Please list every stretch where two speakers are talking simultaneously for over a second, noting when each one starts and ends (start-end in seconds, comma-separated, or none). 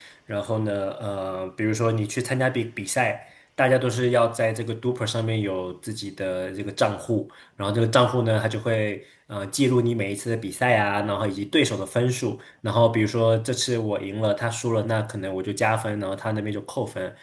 none